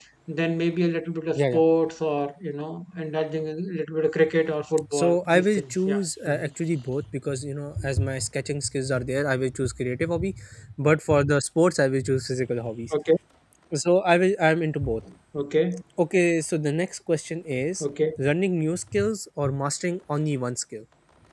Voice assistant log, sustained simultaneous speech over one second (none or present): present